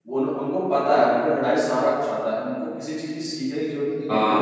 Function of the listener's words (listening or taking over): taking over